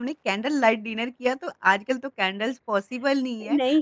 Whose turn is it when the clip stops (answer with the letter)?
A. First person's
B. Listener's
A